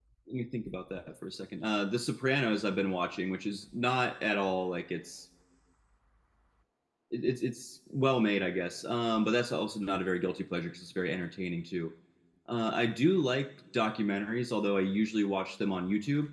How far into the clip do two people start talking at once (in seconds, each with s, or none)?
none